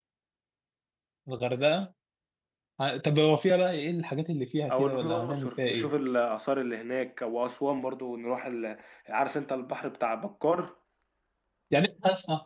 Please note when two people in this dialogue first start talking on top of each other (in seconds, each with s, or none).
4.7 s